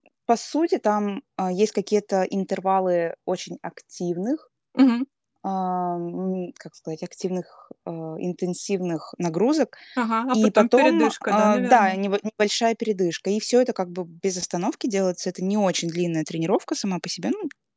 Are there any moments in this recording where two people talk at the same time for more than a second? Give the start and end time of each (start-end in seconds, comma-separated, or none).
10.3-12.0